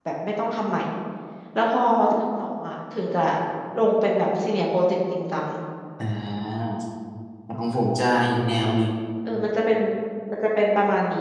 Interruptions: none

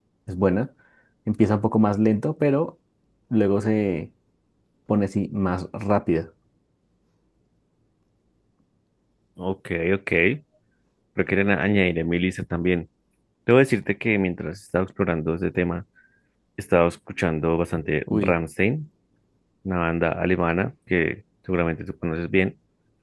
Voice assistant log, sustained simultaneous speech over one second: none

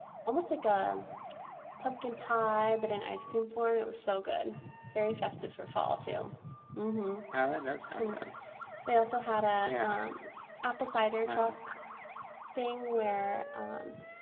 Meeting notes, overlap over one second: none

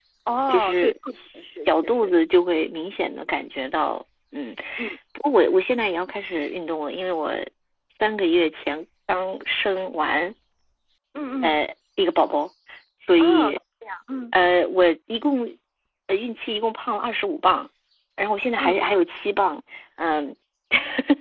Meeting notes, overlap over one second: present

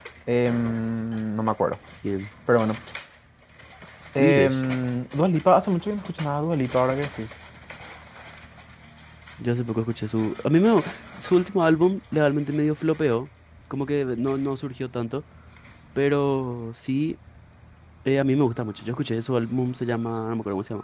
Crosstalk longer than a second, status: none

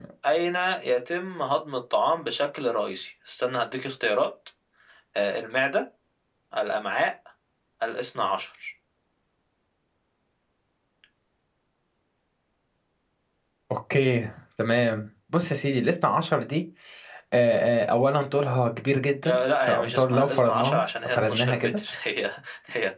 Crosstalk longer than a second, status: present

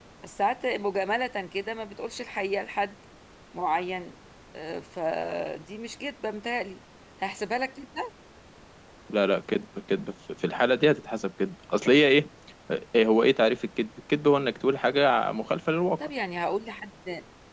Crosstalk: none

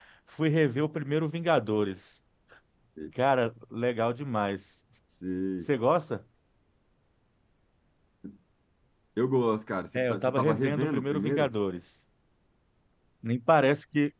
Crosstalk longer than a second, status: present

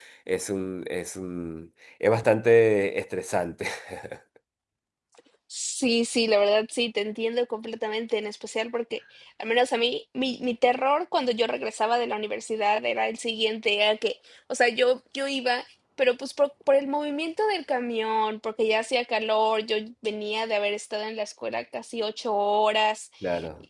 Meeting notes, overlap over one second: none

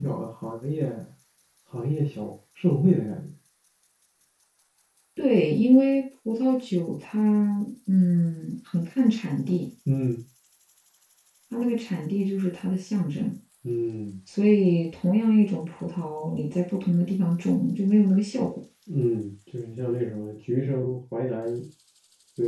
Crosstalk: none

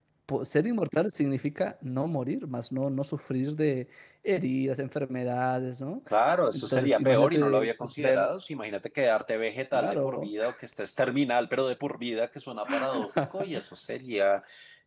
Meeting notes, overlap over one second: present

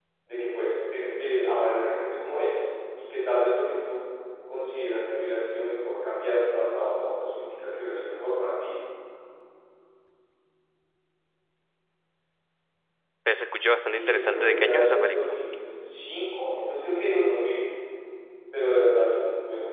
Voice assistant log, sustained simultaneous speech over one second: present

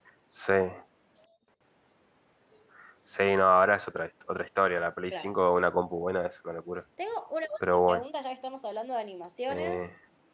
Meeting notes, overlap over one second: none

